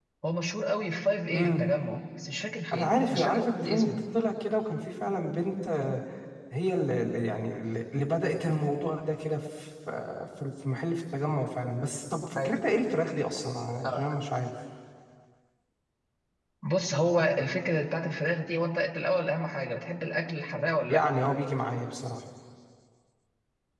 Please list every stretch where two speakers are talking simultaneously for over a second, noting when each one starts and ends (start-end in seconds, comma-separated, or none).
2.7-4.0